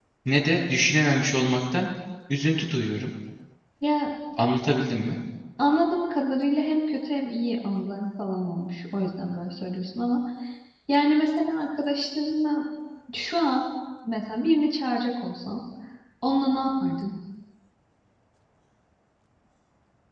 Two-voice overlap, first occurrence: none

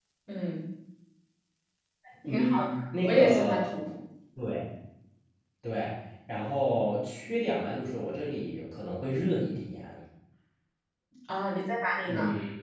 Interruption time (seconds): 2.3 s

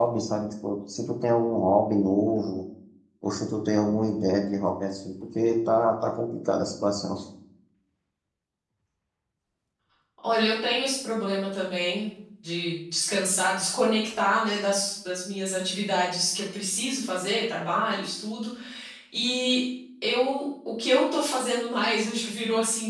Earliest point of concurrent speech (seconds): none

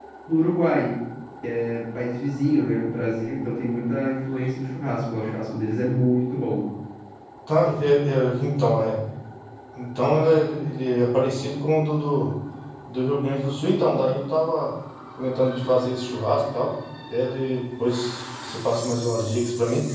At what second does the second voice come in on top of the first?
none

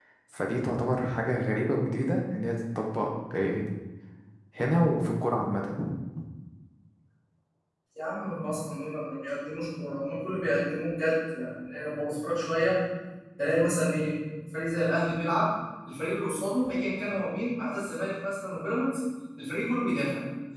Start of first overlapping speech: none

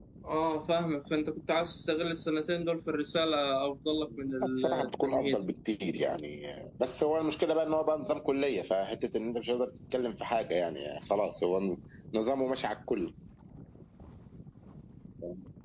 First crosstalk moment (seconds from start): 4.1 s

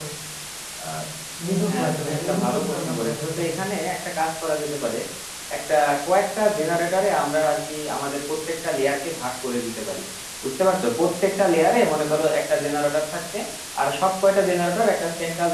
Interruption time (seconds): 1.7 s

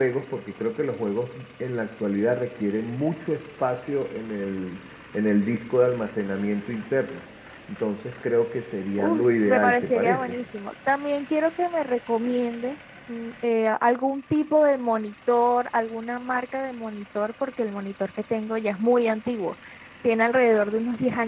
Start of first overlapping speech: 9.0 s

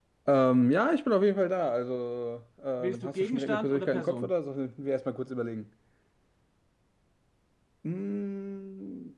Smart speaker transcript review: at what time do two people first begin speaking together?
2.8 s

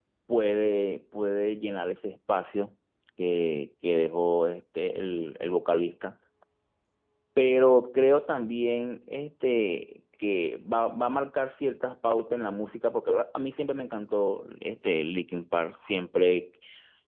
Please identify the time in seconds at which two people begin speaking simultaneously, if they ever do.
none

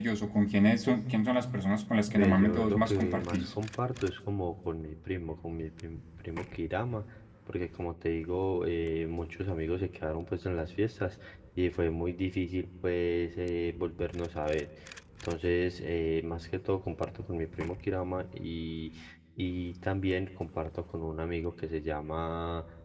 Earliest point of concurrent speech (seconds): 2.2 s

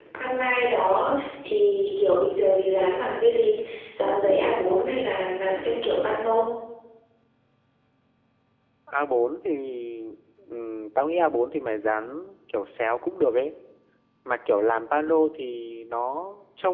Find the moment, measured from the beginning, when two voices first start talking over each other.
none

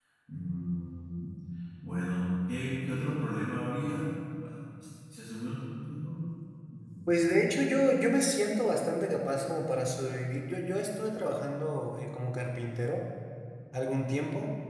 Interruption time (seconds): none

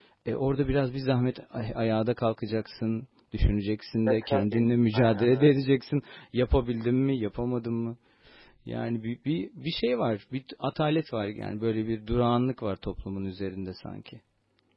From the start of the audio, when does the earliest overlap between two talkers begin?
4.1 s

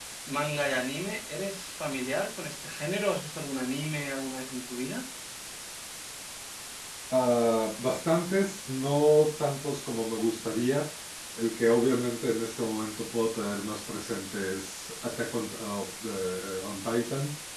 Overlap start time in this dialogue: none

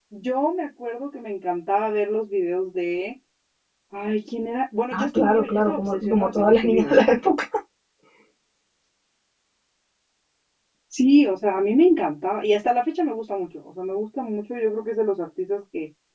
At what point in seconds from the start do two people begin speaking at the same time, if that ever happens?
4.9 s

